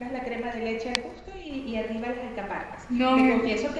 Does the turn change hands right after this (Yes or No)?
No